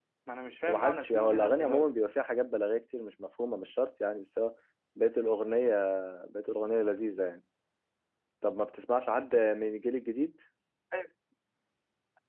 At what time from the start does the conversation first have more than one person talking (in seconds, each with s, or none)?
0.6 s